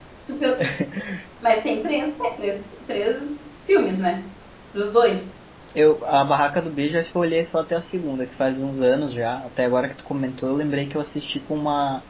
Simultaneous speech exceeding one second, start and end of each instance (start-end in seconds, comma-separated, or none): none